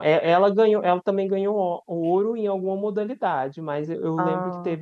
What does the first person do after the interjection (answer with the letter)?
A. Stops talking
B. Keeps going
B